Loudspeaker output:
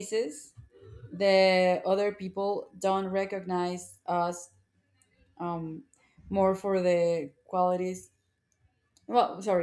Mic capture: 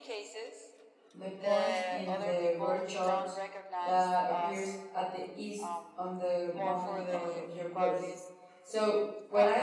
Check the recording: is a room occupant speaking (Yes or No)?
Yes